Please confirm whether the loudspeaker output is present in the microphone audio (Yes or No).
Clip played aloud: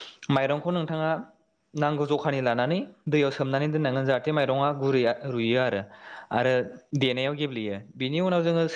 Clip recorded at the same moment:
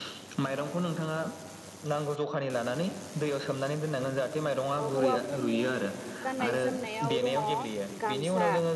Yes